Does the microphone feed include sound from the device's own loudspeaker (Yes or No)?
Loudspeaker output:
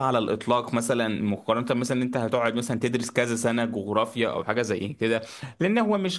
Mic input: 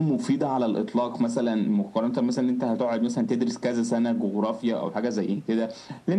Yes